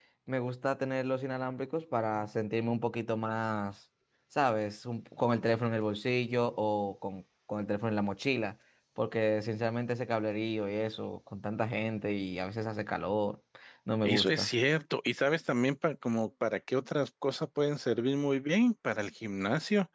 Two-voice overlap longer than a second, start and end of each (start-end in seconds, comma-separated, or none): none